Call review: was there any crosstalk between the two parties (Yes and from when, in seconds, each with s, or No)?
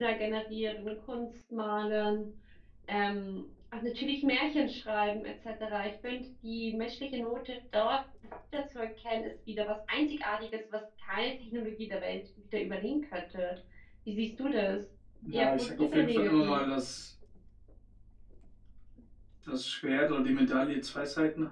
Yes, from 15.3 s